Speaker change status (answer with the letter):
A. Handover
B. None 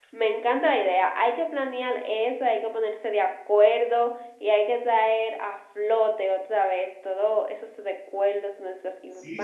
A